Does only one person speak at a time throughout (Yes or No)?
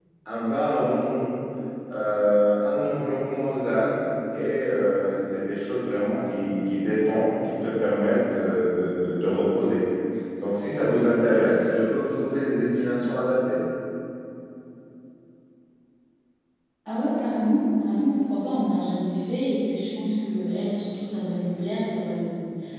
Yes